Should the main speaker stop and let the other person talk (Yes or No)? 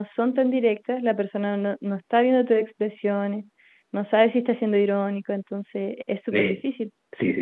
Yes